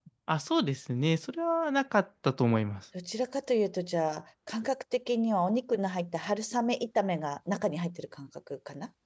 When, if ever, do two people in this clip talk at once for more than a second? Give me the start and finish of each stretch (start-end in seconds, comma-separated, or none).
none